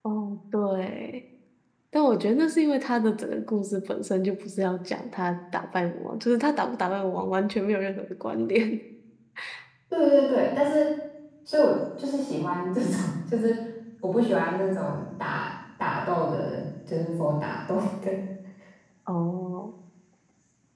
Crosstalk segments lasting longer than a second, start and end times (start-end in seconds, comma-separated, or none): none